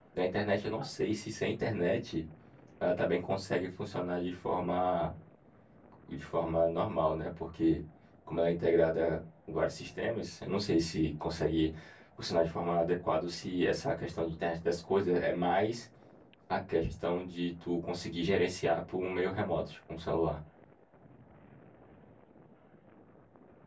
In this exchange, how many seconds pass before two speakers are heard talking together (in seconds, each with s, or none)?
none